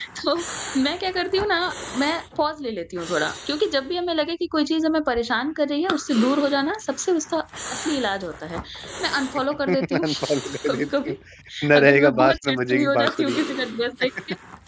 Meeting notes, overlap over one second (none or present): present